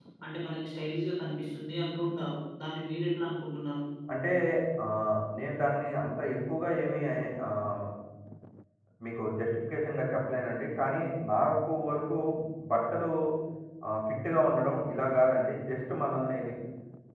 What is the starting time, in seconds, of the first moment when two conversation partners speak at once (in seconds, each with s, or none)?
none